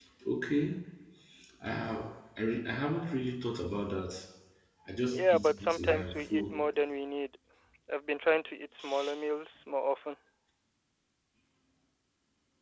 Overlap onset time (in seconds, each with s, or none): 5.1 s